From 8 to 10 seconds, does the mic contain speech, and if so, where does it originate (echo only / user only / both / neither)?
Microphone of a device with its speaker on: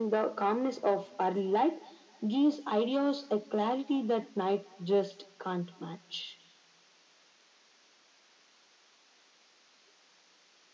neither